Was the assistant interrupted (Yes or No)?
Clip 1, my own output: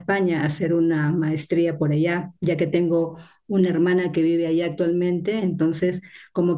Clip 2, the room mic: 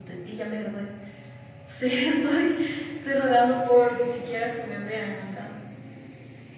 Yes